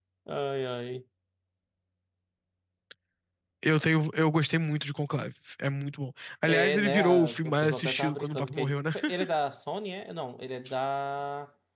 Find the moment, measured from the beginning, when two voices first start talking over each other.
6.5 s

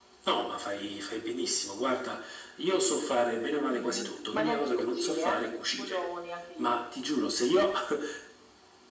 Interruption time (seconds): 3.7 s

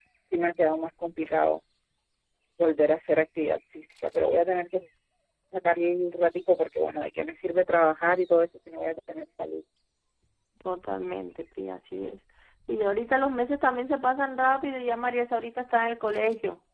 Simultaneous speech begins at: none

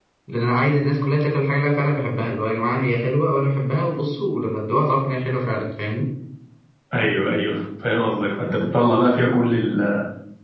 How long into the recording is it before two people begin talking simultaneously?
none

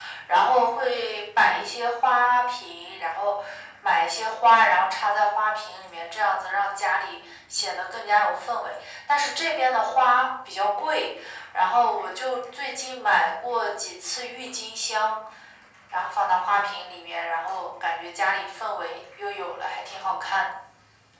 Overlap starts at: none

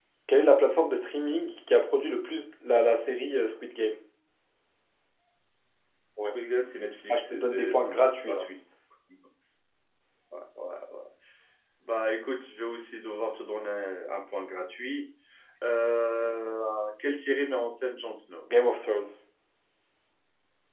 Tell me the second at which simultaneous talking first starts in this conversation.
7.1 s

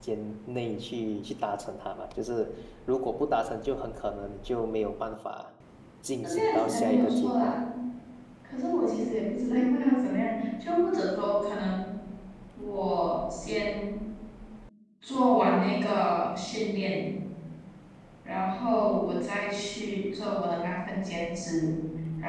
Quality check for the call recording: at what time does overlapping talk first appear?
6.2 s

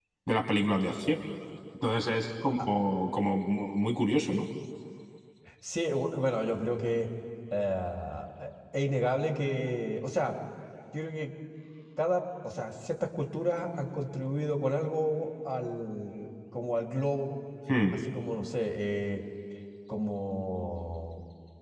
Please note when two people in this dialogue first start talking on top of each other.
none

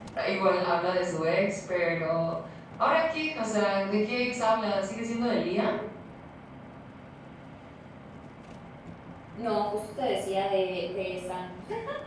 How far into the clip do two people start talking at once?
none

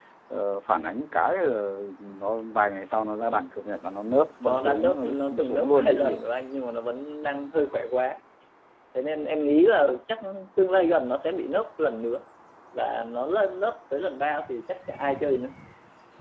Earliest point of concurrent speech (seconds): 4.4 s

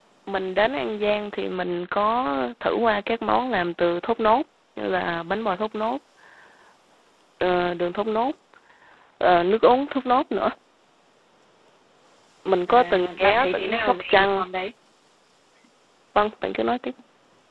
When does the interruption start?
12.7 s

